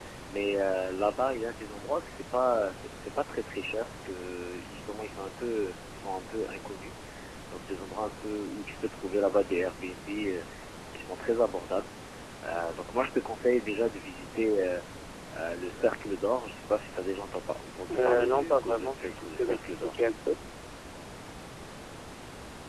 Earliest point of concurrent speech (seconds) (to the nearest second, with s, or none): 18 s